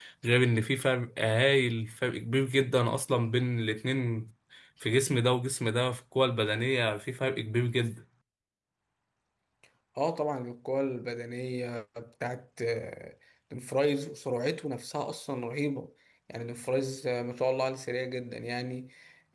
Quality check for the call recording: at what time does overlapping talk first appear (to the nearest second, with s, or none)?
none